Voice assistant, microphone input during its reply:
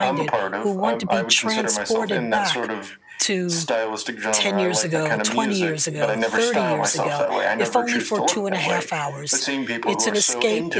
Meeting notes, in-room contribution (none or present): present